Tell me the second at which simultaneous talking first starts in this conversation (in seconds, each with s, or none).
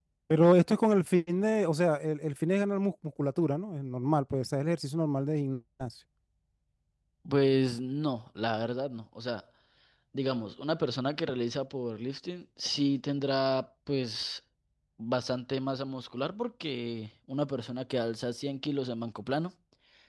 none